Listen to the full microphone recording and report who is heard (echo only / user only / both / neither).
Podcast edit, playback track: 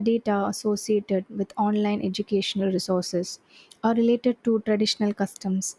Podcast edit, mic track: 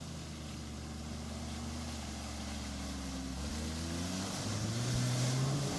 neither